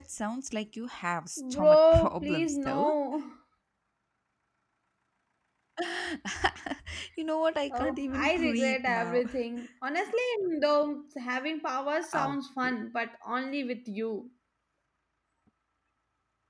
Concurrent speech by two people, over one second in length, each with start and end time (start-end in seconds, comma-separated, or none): 1.5-2.9, 7.7-9.2